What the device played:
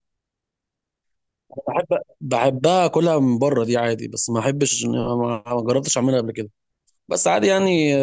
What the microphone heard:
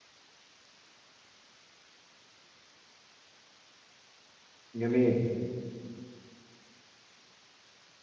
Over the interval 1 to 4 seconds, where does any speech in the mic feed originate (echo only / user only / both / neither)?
neither